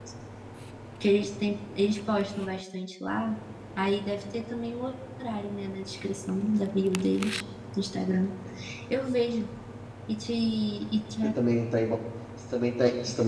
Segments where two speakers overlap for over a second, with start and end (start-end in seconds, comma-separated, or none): none